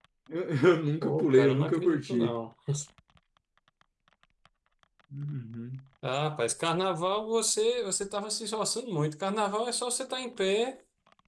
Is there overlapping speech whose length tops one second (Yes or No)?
Yes